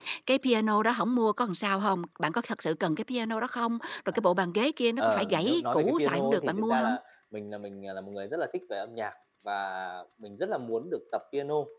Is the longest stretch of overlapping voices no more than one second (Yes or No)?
No